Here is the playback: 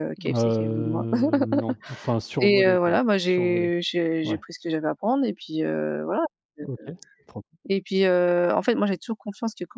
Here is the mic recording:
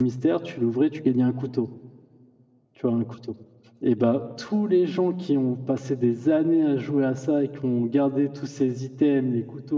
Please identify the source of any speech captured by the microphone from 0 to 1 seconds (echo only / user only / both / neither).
user only